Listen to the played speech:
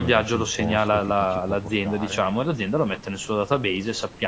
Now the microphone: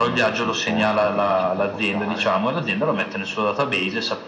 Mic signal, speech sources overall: echo only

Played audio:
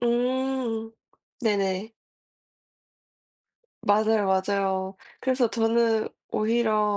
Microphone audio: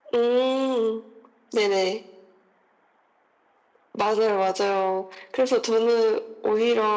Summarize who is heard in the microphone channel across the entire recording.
echo only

